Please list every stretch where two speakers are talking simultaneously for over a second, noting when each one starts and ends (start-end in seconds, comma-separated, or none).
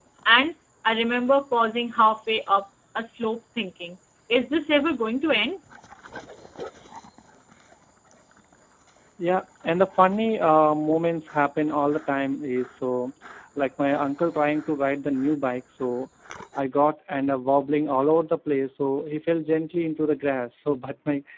none